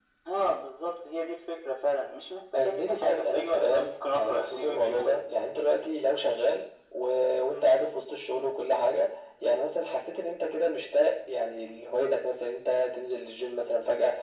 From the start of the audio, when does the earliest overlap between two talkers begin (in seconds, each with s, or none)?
2.5 s